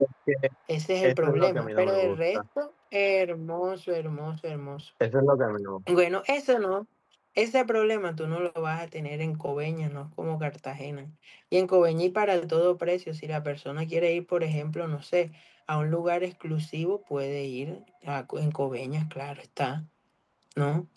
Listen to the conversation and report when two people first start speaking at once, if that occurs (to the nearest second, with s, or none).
1 s